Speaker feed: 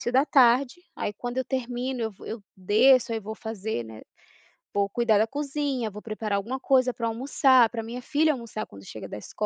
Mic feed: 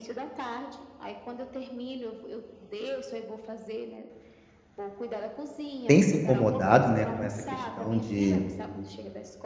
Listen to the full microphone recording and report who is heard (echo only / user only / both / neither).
both